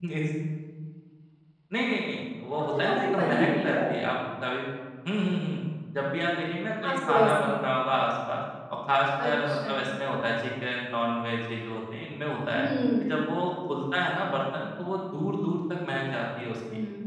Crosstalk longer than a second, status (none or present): present